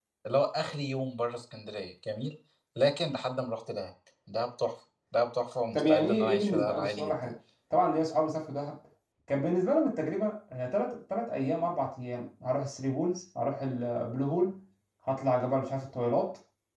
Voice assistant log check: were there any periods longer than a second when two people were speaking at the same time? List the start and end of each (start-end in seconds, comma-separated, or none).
5.7-7.3